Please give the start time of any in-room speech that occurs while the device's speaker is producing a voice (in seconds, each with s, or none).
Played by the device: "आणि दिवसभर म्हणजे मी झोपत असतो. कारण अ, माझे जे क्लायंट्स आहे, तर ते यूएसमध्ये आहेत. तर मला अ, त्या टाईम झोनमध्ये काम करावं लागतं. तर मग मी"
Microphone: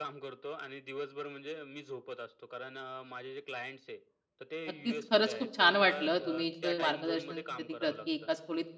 4.7 s